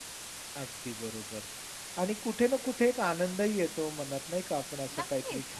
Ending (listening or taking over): listening